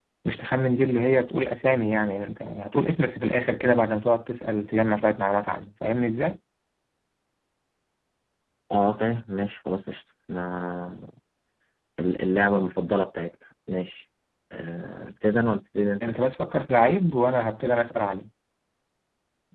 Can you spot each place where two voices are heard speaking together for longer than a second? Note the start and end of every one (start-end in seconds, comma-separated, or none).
none